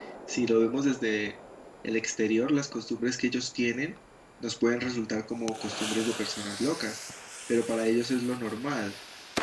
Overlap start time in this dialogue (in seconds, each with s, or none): none